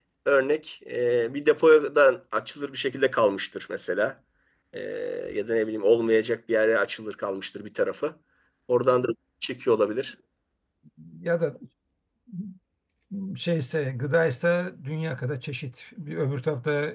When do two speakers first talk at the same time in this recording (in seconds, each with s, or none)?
none